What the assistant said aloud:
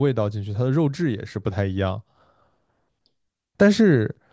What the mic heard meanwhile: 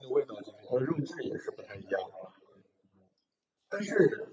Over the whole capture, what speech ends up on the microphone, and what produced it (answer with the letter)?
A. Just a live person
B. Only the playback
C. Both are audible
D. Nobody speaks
B